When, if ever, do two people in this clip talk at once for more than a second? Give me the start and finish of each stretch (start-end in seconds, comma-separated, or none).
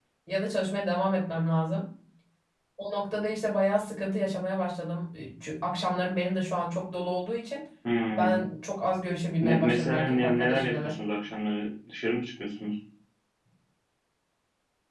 9.4-10.8